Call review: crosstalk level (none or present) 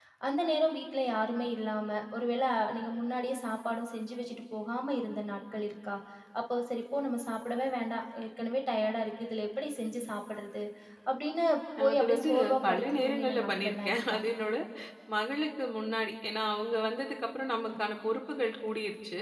present